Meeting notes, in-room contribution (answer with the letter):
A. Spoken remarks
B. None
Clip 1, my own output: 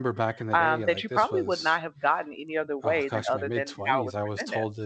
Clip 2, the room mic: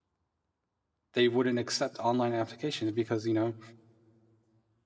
A